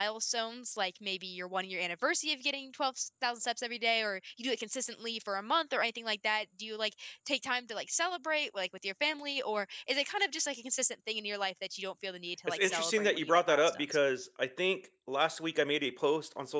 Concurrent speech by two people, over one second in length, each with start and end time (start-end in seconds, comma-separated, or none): 12.5-13.8